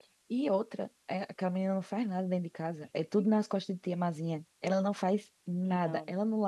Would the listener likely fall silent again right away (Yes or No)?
Yes